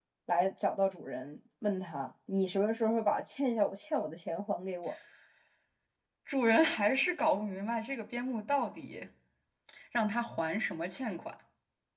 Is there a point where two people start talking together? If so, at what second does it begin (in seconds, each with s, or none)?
none